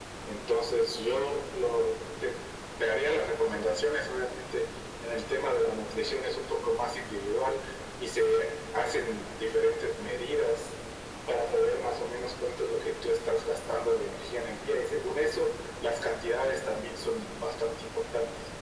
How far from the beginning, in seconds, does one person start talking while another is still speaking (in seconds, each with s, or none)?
none